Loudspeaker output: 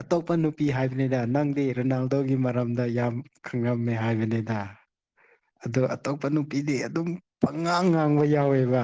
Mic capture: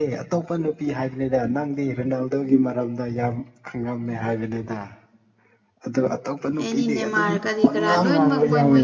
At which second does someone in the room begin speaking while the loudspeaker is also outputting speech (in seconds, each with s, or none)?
6.6 s